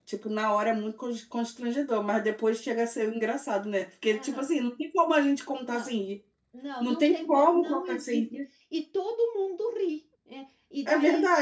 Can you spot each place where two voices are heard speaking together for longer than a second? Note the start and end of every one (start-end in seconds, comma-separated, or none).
6.8-8.2